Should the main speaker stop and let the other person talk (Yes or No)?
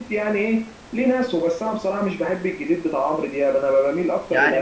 Yes